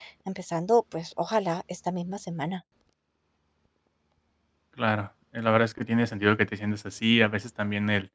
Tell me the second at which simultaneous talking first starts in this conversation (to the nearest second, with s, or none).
none